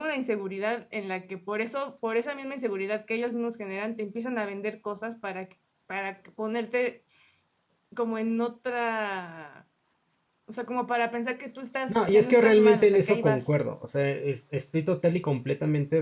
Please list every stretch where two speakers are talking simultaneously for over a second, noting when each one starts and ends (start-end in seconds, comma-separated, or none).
11.9-13.6